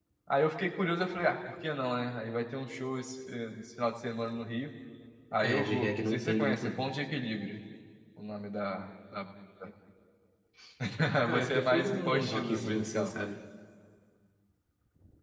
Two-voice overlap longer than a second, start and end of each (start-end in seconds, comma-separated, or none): 5.4-6.9, 11.3-13.1